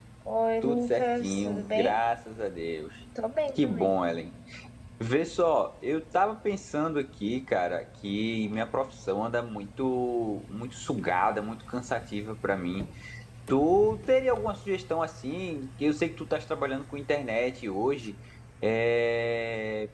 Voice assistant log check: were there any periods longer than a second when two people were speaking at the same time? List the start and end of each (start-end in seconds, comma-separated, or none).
0.6-1.9